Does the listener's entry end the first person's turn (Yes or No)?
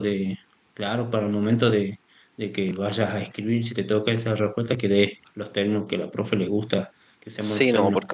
Yes